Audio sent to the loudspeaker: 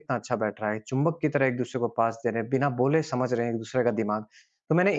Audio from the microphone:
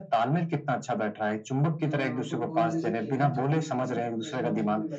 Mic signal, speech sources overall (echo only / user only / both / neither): both